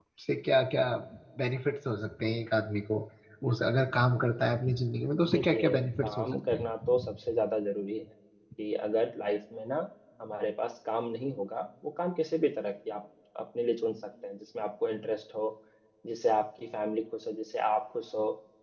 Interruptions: present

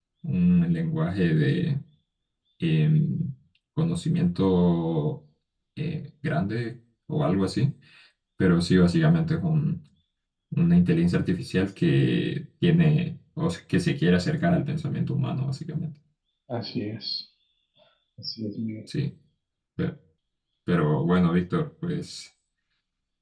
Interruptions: none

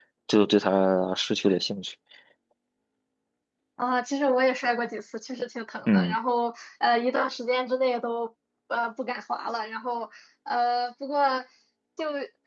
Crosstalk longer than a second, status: none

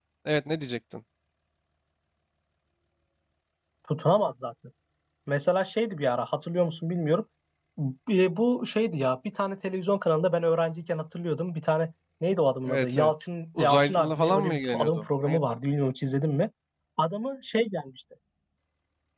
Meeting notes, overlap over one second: present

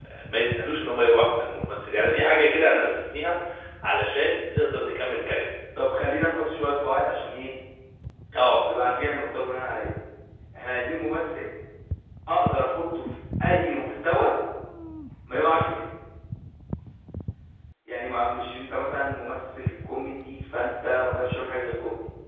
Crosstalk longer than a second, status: none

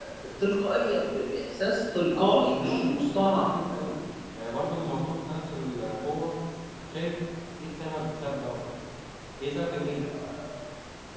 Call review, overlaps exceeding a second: present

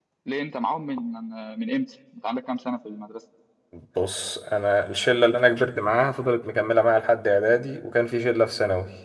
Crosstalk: none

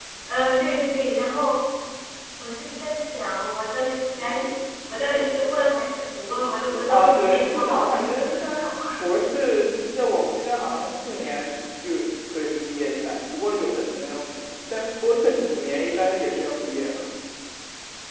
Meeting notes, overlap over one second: present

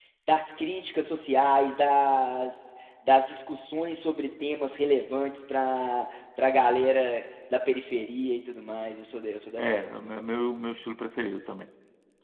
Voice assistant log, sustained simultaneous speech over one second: none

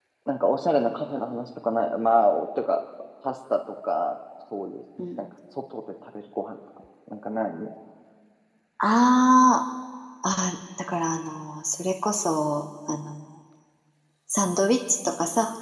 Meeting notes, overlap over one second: none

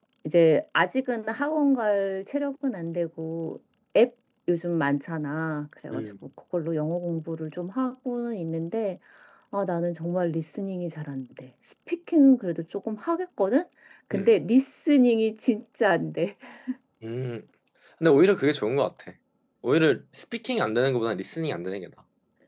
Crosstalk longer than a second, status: none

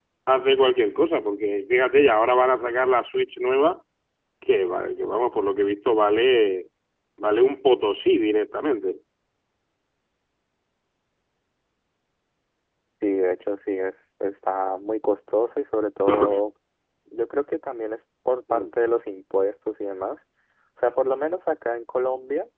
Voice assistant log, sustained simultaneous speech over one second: none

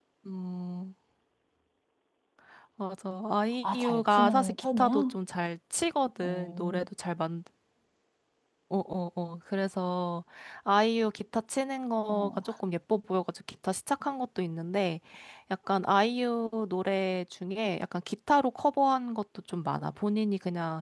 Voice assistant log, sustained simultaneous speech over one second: present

